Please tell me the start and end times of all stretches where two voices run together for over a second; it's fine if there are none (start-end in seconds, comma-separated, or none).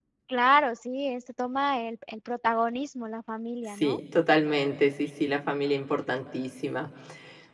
none